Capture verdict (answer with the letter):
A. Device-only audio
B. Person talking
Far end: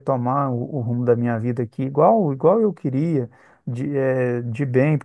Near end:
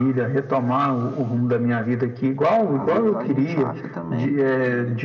B